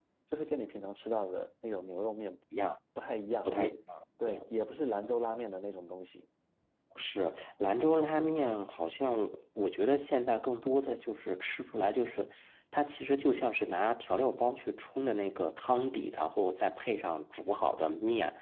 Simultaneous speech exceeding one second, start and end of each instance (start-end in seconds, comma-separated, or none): none